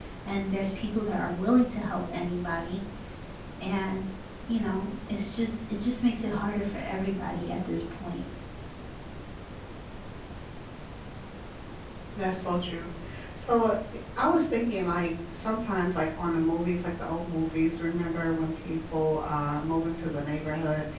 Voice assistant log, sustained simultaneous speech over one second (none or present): none